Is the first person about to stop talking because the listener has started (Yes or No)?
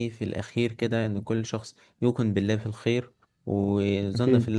No